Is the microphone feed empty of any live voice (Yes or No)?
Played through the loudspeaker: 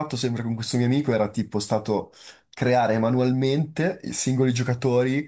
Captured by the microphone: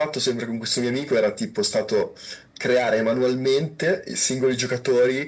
Yes